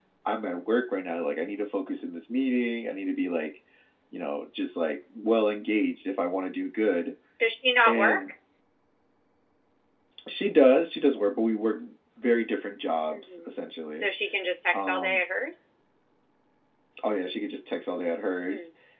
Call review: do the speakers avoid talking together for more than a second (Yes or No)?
Yes